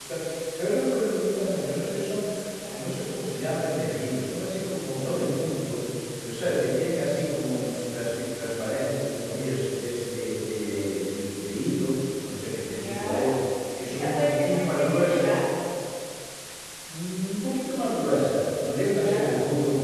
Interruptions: present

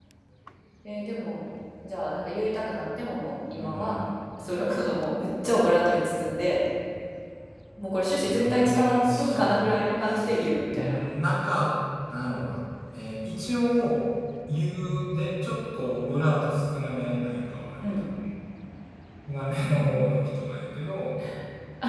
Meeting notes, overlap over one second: present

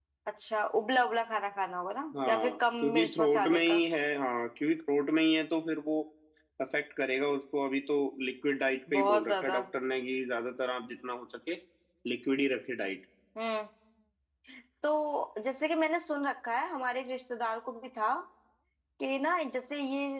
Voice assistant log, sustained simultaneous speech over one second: present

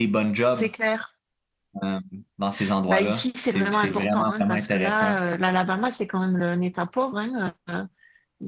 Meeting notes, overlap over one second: present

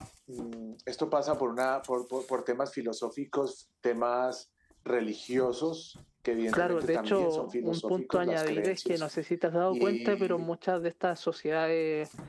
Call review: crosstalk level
present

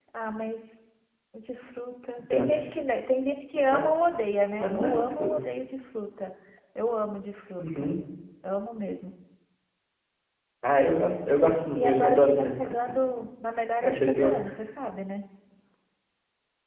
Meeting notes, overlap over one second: present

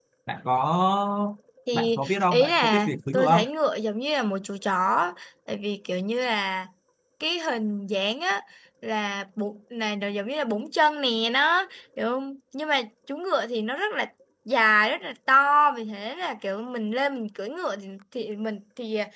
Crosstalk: present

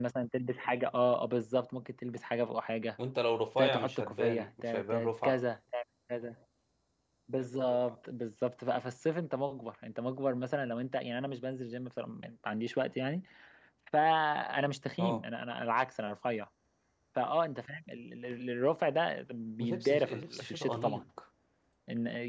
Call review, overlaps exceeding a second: present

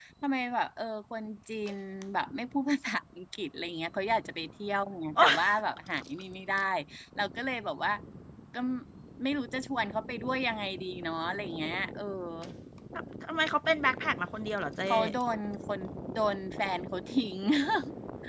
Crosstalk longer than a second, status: none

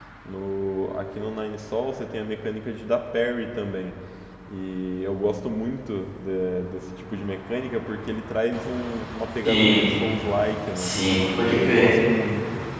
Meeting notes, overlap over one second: none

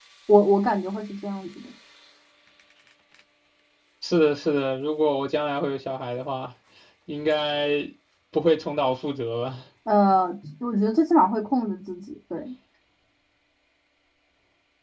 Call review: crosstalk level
none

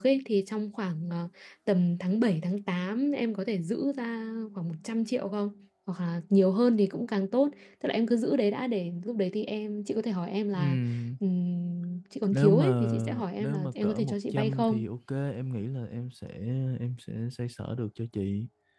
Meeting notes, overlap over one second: present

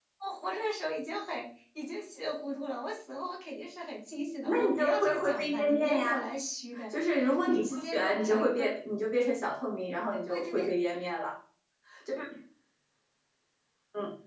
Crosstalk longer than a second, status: present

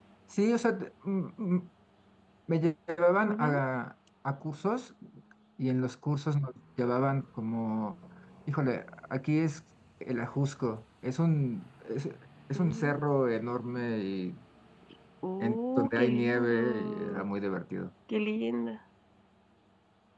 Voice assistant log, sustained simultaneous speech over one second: present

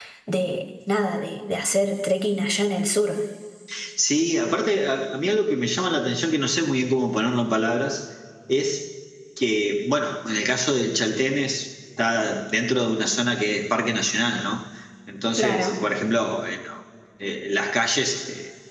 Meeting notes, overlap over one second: none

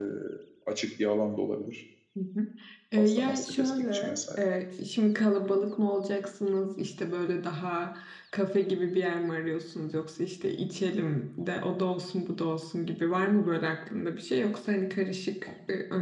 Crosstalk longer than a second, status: present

